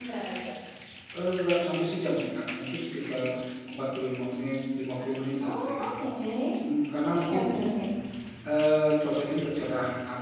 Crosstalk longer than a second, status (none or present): none